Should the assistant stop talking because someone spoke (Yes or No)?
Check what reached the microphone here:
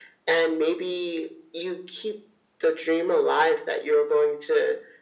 No